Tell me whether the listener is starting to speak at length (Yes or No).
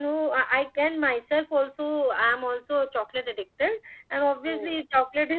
No